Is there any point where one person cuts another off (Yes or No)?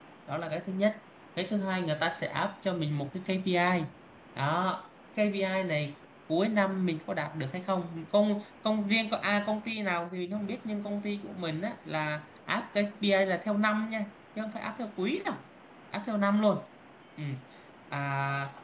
No